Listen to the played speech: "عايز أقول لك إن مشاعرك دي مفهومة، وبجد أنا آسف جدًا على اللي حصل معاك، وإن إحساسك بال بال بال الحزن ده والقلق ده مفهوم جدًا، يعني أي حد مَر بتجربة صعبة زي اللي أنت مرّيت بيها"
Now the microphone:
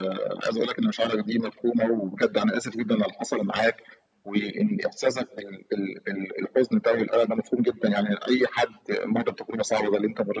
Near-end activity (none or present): none